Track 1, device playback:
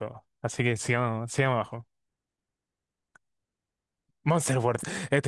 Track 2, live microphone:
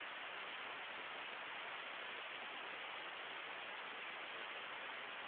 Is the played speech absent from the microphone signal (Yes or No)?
Yes